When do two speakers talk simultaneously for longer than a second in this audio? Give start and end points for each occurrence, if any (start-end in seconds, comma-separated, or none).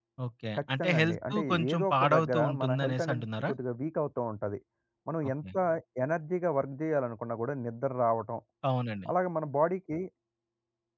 0.6-3.5